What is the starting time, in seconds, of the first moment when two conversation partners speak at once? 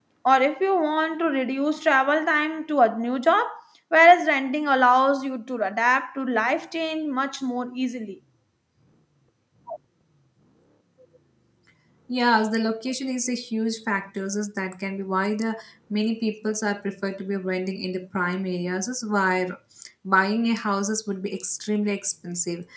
none

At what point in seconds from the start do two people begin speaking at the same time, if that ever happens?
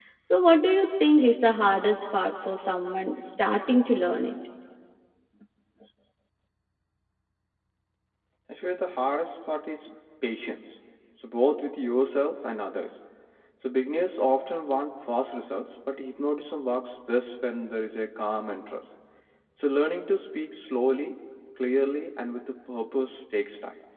none

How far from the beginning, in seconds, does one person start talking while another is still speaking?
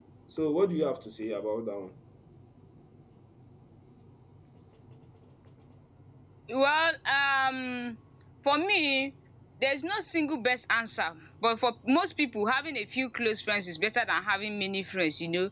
none

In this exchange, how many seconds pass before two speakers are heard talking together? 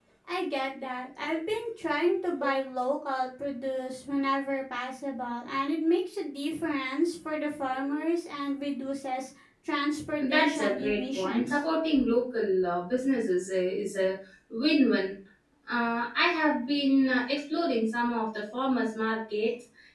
10 s

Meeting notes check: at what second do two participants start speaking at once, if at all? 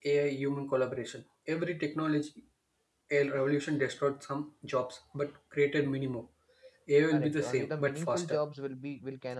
7 s

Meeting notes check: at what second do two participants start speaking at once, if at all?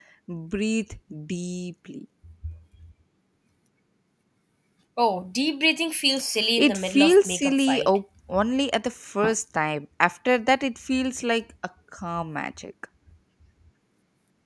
7 s

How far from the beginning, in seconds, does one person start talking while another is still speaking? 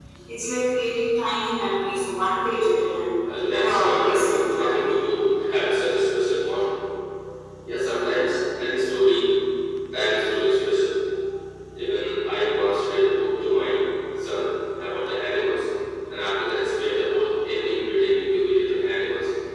4 s

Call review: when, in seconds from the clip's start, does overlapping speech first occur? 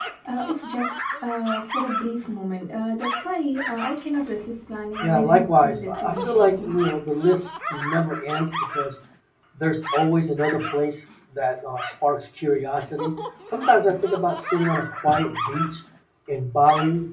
5 s

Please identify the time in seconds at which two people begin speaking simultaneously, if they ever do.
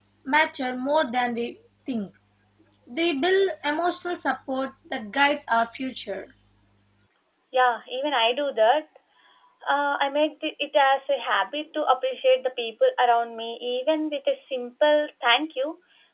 none

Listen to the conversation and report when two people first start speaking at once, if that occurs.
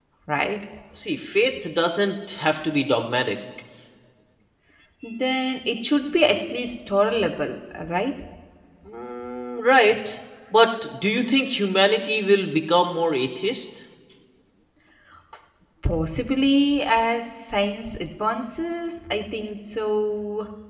none

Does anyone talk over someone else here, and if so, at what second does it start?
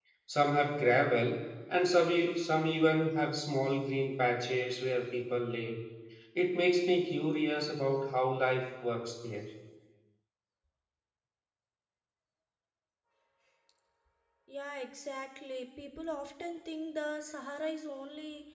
none

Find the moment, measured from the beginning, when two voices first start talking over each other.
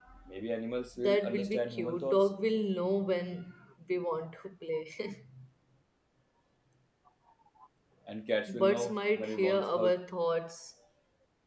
1 s

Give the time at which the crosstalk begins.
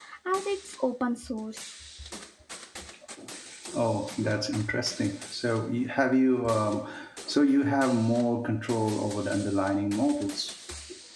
none

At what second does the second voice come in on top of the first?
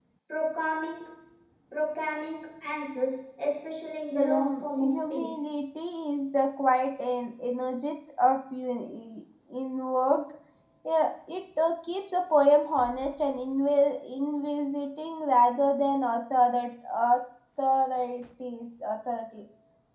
4 s

